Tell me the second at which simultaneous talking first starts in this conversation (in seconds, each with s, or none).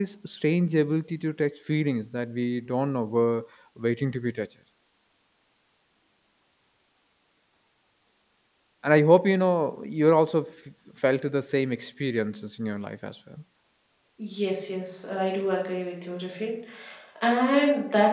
none